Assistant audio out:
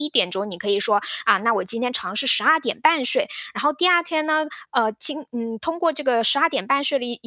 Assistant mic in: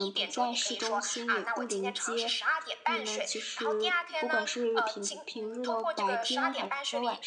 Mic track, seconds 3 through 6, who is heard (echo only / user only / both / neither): both